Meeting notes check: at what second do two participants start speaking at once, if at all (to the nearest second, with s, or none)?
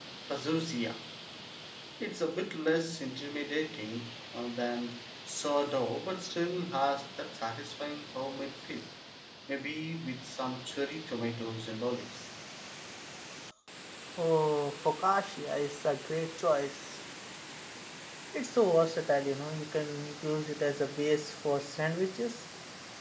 none